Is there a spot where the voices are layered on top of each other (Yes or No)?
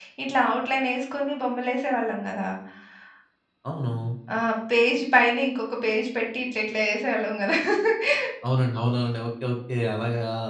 No